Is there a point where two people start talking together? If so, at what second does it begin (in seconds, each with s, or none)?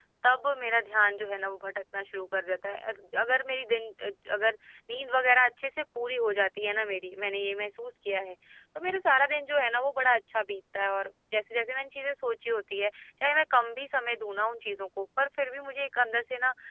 none